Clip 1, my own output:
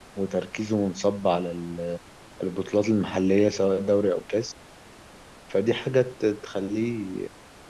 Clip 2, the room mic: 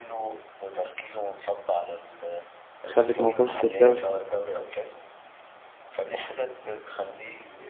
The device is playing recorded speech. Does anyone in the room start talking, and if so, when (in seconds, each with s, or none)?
2.8 s